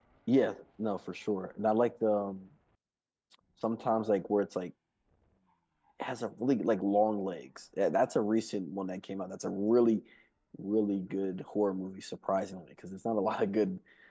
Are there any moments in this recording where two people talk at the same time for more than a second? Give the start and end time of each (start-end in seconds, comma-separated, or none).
none